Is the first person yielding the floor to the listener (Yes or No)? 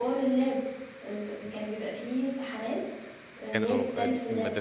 Yes